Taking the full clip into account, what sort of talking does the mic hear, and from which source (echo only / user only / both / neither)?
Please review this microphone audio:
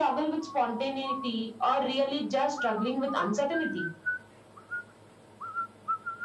echo only